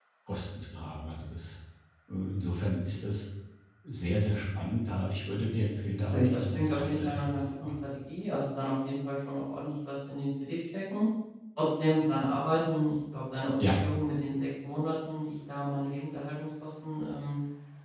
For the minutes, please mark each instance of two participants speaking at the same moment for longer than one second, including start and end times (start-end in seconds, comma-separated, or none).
6.1-7.9